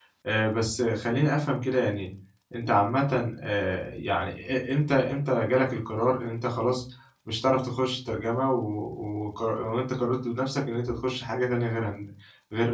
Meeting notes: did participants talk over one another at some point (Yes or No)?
No